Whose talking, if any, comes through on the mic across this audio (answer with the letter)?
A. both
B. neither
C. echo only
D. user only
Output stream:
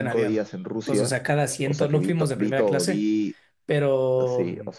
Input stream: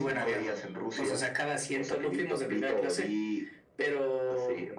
C